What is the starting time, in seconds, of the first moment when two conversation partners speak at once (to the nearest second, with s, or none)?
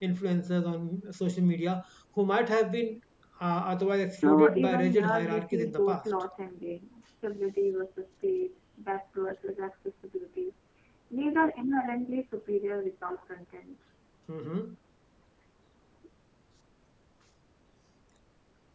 4 s